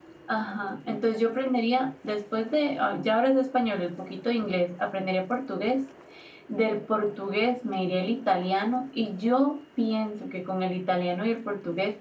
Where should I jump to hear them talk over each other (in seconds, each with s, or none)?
none